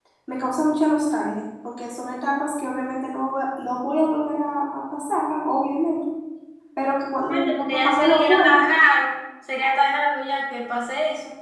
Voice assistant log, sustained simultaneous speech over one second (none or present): present